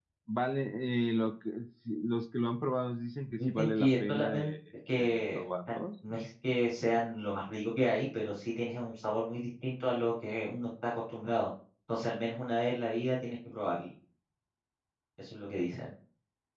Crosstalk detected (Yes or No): Yes